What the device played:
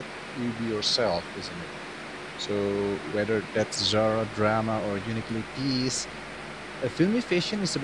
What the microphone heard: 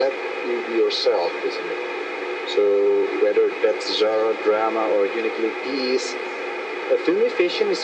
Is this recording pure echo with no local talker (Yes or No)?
Yes